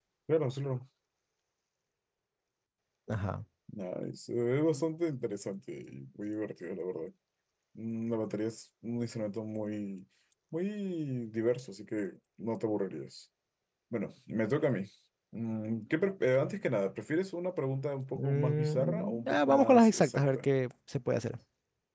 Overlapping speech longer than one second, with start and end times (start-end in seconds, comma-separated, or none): 18.1-20.5